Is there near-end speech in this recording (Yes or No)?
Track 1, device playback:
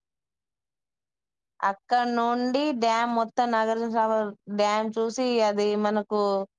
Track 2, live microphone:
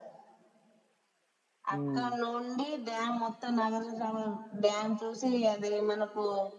Yes